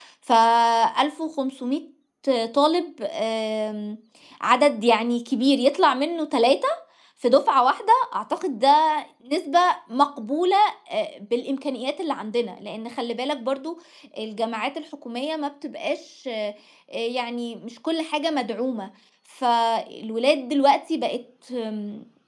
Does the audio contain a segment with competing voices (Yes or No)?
No